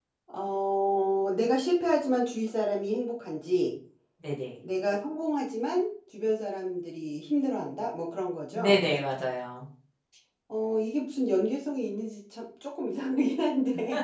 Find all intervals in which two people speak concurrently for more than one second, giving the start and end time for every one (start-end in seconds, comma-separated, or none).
none